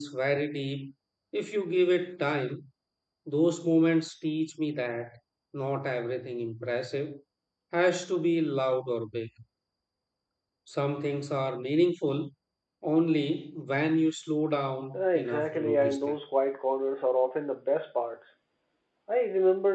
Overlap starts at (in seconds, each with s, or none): 14.9 s